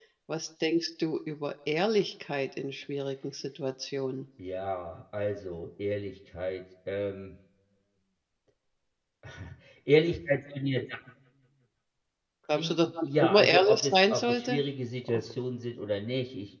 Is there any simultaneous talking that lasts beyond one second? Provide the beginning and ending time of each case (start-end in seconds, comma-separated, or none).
13.2-14.6